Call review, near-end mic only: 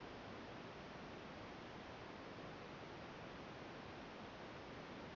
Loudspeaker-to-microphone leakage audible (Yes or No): No